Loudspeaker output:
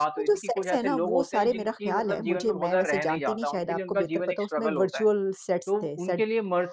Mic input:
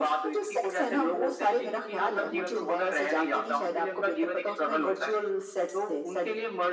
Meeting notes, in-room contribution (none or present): none